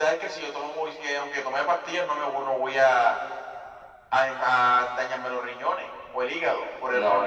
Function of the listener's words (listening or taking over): taking over